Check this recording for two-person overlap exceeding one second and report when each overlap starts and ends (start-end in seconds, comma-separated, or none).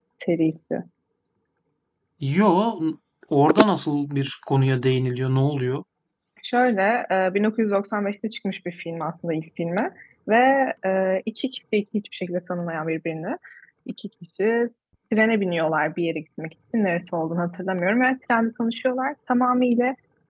none